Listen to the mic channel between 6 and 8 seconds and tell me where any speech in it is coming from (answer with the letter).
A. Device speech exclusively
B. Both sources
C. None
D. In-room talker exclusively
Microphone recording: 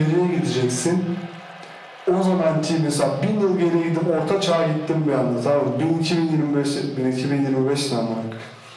A